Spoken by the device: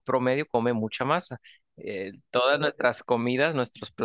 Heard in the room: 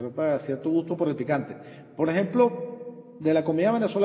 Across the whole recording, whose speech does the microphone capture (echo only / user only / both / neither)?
user only